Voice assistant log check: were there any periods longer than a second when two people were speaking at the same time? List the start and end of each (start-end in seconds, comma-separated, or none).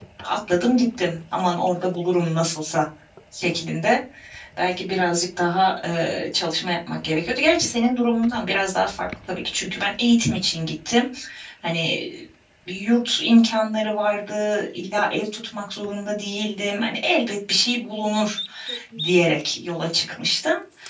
none